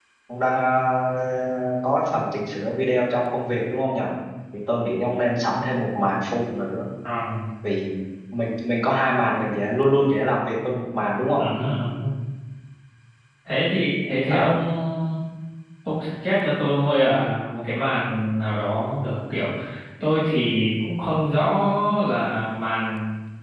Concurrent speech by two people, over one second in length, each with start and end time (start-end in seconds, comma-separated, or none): none